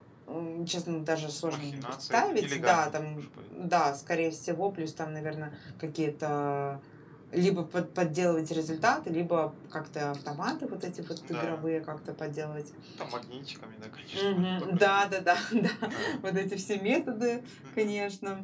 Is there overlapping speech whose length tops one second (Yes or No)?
Yes